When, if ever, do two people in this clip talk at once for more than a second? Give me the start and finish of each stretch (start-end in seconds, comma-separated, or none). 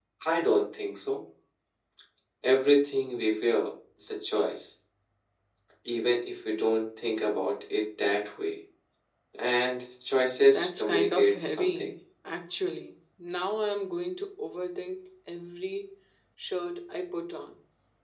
10.5-11.9